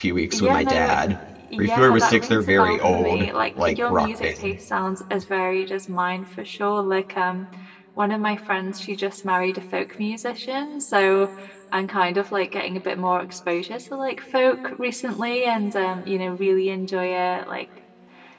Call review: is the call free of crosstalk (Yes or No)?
No